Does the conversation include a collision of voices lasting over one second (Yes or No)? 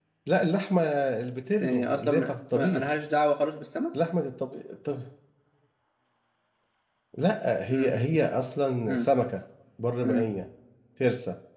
Yes